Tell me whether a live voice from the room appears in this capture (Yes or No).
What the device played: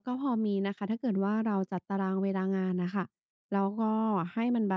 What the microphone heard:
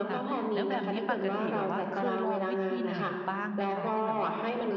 Yes